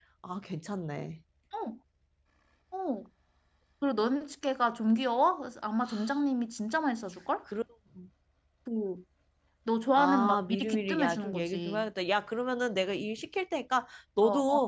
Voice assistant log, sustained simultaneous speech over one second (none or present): present